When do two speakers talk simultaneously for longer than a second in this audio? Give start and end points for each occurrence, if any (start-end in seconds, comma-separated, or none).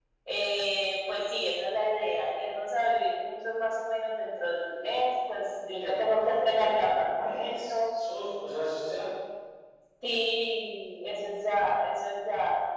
5.8-7.7